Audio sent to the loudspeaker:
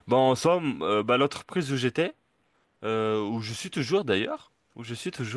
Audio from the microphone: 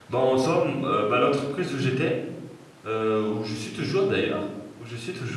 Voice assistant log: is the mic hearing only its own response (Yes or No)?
Yes